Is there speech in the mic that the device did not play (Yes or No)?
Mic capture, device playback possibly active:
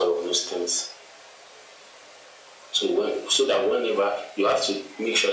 No